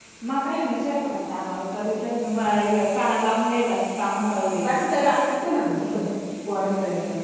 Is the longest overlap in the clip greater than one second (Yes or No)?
No